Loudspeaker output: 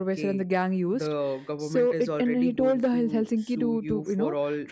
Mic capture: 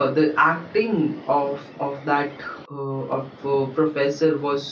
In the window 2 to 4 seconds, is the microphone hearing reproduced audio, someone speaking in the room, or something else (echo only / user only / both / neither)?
user only